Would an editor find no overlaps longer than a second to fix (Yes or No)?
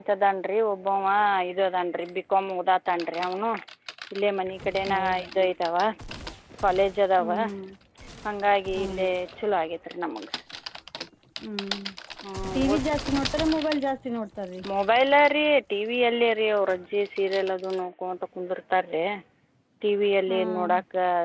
Yes